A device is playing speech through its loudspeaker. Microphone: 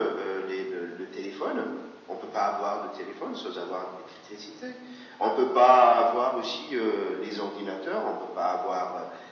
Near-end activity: none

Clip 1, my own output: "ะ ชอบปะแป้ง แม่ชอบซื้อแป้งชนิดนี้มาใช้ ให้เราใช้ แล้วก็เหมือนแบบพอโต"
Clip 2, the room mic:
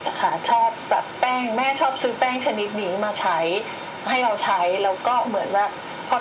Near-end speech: none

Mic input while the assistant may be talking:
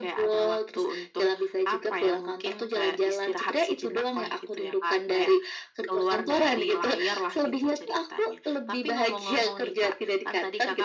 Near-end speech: none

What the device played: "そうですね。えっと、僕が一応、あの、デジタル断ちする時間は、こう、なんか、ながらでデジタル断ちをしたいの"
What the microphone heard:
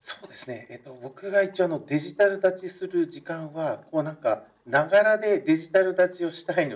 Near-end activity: none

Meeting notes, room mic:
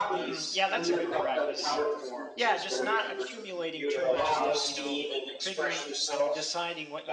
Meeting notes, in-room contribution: present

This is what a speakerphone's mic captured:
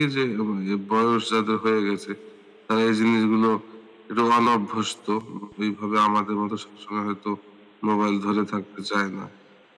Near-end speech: none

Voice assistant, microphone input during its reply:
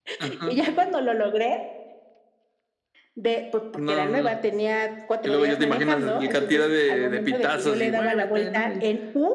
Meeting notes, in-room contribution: none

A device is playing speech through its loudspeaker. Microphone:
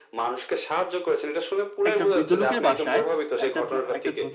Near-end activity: present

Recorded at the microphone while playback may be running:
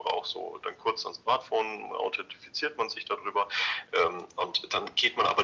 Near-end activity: none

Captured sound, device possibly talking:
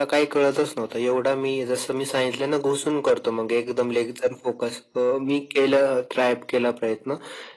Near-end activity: none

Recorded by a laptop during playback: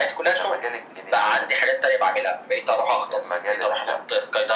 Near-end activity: none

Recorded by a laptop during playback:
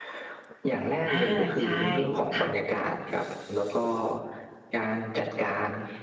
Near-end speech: present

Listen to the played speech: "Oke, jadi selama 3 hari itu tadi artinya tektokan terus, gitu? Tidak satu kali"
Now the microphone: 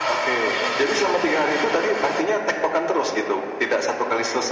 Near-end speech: none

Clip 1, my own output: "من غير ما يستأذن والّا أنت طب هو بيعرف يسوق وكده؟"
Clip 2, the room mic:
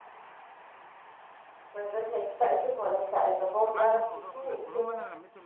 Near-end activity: present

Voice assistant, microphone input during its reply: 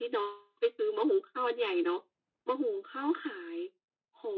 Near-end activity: none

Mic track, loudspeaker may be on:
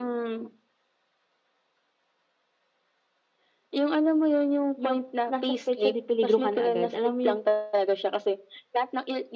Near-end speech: present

